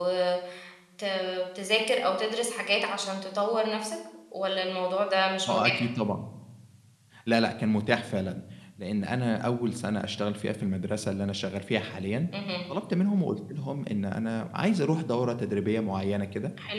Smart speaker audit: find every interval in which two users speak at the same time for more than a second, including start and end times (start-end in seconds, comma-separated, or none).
none